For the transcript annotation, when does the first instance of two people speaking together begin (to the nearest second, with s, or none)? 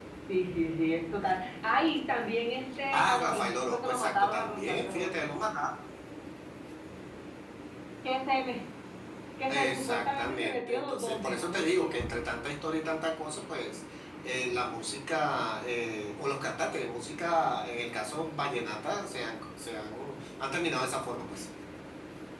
3 s